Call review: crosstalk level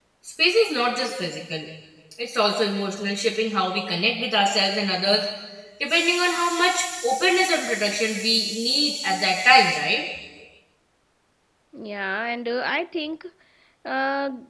none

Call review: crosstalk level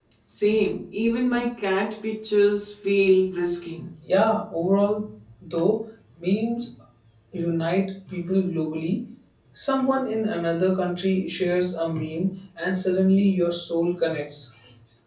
none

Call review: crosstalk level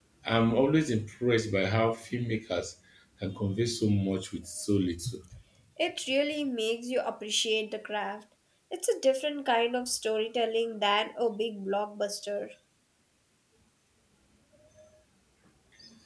none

